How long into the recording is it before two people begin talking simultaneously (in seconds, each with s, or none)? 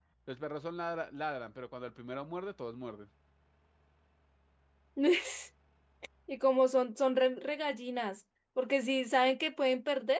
none